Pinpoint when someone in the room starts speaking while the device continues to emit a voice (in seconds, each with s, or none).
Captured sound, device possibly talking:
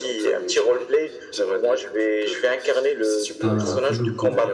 3.4 s